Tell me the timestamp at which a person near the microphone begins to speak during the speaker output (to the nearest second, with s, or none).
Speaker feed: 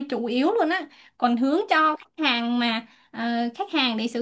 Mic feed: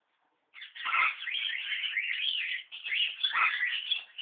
none